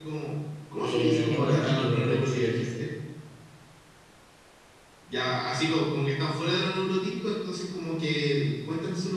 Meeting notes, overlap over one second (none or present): present